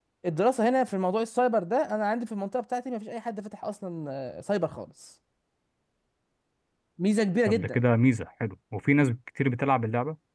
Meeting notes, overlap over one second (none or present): none